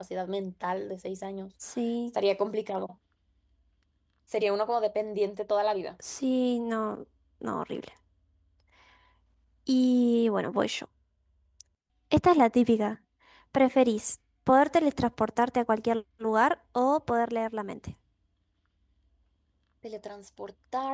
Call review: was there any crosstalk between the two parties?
No

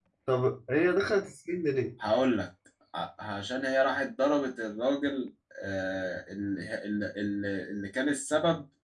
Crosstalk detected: No

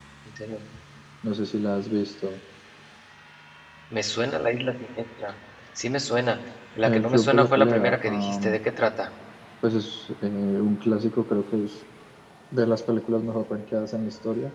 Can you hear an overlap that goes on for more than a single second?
Yes, from 6.8 s

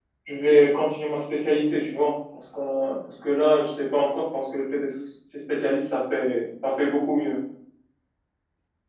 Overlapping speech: No

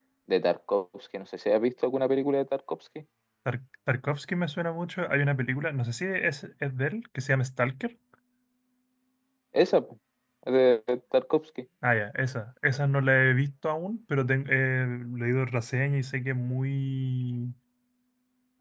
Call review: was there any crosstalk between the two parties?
No

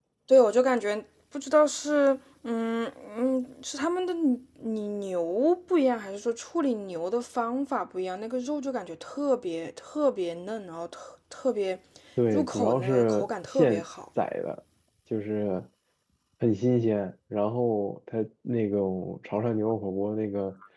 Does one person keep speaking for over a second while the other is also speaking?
Yes, from 12.3 s

